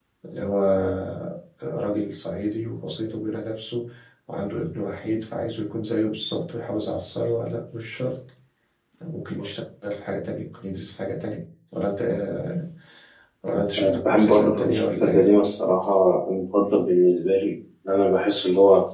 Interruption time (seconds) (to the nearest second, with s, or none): 14 s